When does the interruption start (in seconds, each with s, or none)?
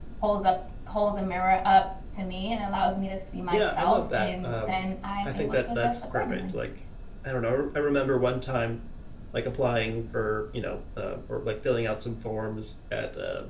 3.5 s